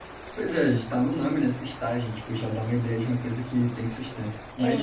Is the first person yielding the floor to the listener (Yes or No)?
No